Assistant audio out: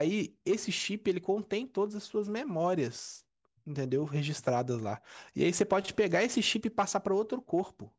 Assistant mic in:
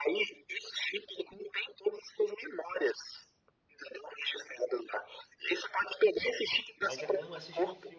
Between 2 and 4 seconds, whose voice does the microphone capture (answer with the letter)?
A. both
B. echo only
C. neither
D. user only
B